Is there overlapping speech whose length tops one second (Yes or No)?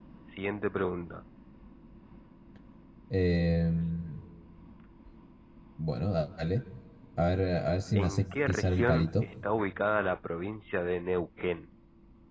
Yes